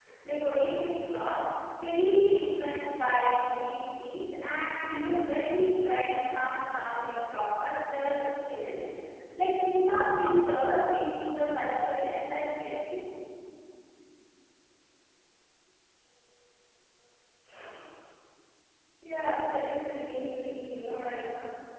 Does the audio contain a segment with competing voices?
No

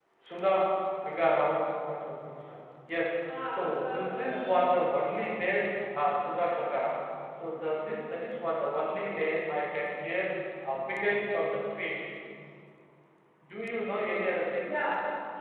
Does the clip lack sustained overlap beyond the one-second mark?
No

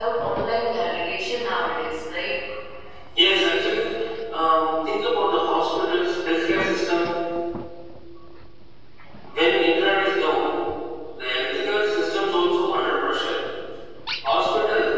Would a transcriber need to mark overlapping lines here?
No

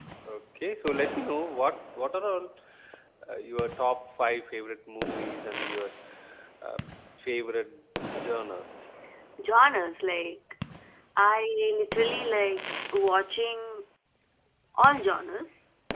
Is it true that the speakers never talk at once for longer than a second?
Yes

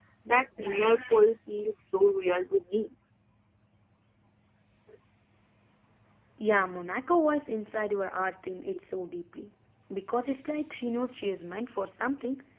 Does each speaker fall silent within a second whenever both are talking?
Yes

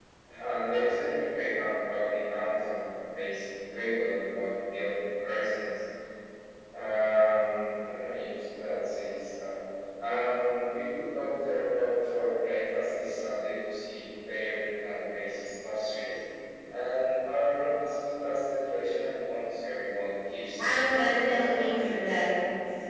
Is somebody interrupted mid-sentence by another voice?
Yes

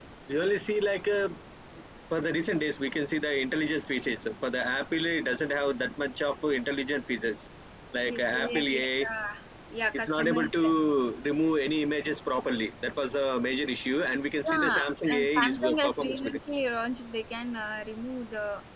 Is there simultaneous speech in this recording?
Yes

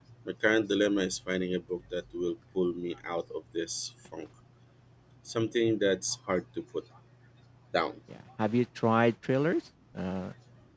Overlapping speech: No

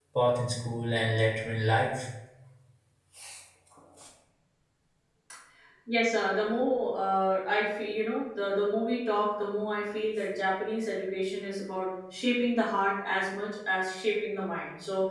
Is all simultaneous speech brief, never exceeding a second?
Yes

